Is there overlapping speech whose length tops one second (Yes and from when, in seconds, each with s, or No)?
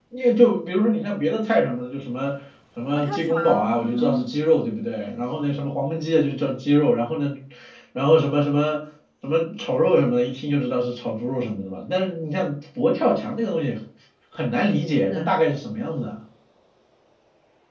Yes, from 3.0 s